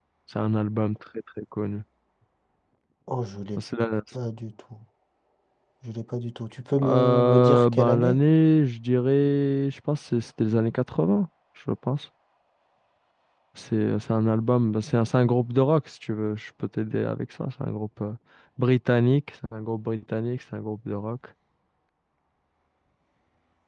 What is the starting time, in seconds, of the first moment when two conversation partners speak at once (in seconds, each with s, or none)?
6.8 s